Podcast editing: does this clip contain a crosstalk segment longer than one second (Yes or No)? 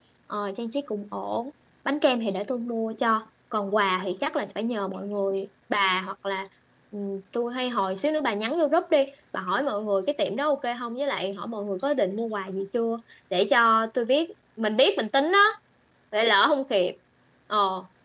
No